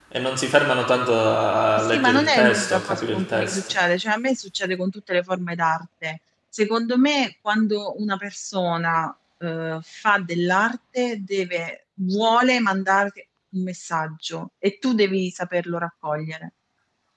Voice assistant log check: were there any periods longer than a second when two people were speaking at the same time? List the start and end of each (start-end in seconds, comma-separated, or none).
1.8-3.7